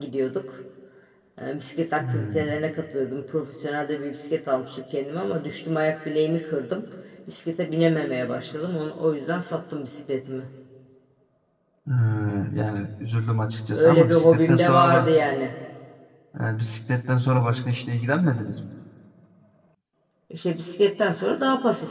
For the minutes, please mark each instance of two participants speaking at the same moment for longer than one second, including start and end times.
13.7-15.1

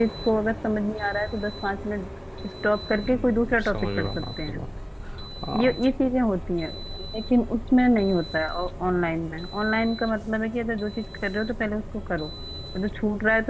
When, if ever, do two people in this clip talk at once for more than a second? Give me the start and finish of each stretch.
3.0-4.6

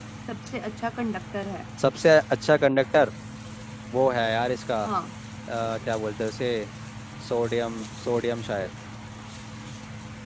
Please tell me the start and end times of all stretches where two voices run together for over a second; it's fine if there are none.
none

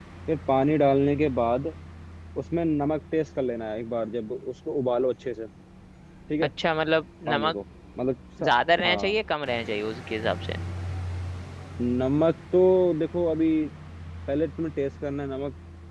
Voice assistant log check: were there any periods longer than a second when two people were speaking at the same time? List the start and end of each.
none

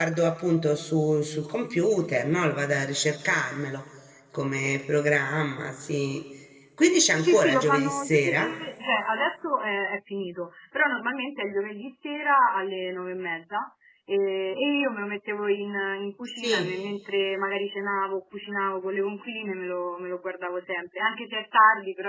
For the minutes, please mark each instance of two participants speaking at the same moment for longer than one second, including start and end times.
7.2-8.5

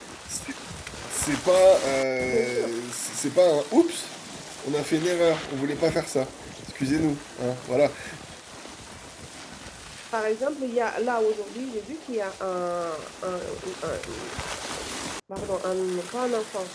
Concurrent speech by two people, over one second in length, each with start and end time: none

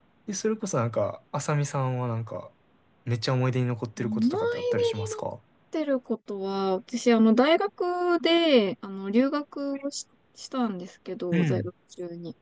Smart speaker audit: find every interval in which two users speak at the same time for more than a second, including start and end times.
4.0-5.2

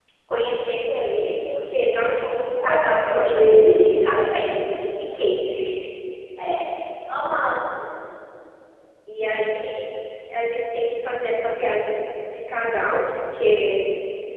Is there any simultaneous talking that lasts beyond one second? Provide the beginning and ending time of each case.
2.6-4.5

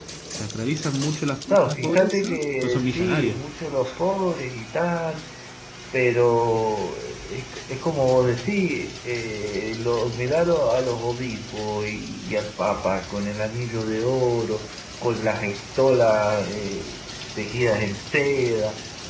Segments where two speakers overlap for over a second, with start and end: 1.5-3.4

